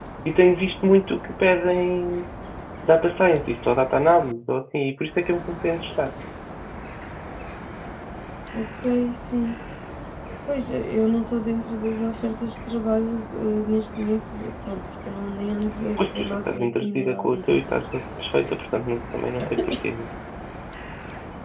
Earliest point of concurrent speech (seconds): 16.0 s

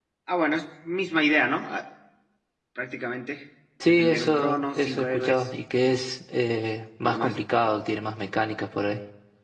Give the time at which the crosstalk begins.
3.8 s

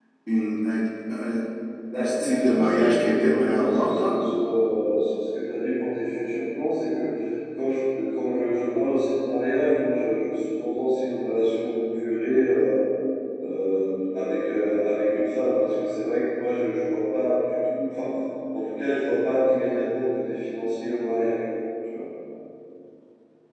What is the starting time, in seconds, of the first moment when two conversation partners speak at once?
1.9 s

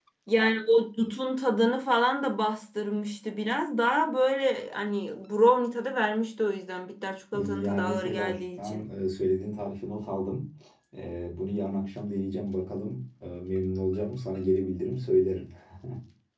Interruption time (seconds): 7.3 s

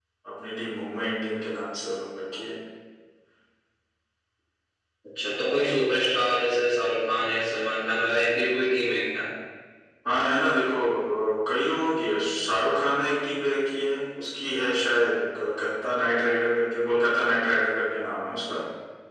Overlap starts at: none

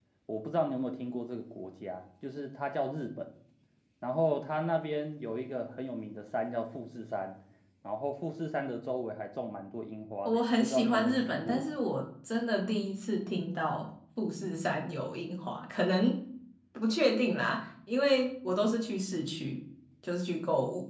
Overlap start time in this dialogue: 10.2 s

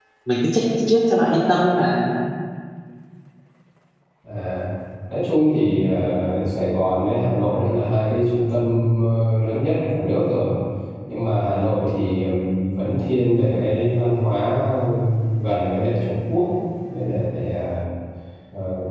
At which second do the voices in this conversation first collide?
none

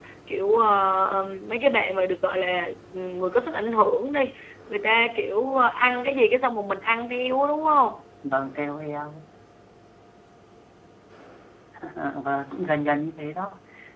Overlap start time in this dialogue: none

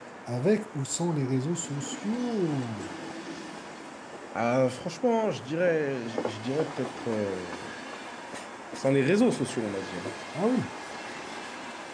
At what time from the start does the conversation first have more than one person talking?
none

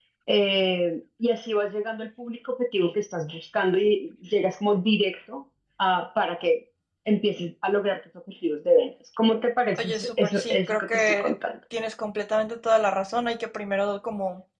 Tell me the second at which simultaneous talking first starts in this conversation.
9.7 s

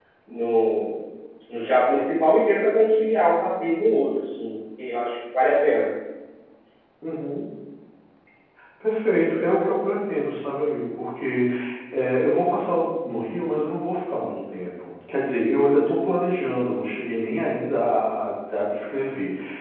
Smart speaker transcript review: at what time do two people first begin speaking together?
none

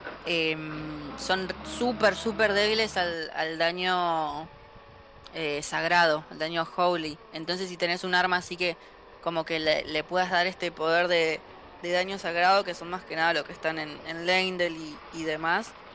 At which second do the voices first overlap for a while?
none

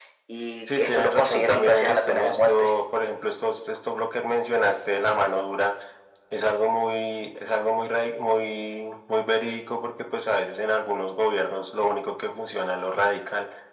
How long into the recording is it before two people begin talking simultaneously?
0.7 s

